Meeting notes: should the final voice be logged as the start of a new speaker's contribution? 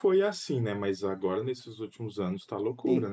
No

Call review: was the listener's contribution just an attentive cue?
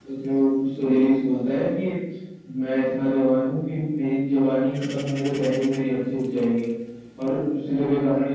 Yes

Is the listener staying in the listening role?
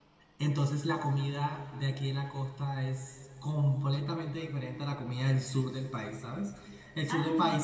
Yes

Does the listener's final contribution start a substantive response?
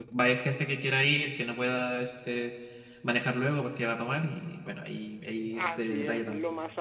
Yes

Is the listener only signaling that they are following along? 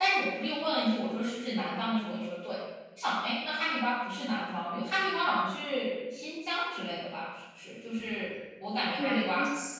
No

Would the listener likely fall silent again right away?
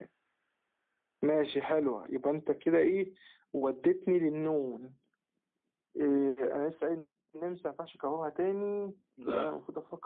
Yes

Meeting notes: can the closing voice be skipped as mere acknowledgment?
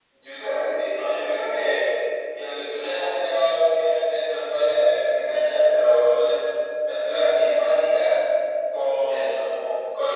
Yes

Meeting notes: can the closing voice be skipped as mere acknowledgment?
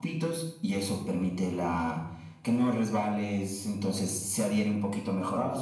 No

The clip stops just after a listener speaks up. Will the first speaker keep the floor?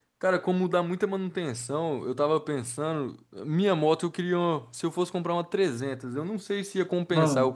Yes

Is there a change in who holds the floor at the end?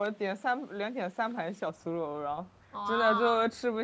No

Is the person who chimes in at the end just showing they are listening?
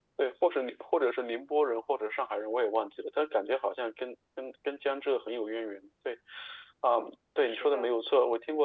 Yes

